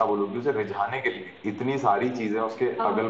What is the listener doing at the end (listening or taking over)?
listening